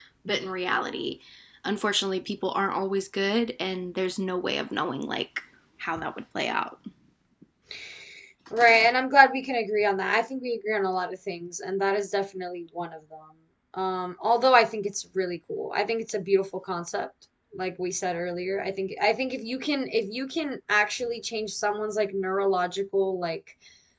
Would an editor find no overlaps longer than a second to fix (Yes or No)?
Yes